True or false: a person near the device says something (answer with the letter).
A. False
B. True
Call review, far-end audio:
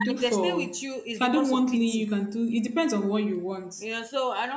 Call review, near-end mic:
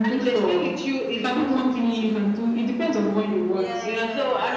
B